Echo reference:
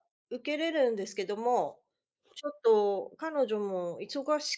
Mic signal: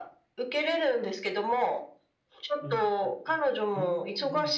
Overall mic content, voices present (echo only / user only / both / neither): both